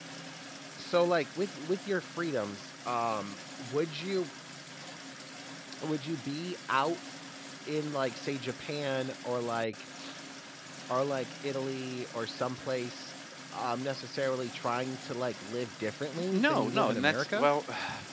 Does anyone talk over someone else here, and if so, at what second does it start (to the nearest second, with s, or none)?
16 s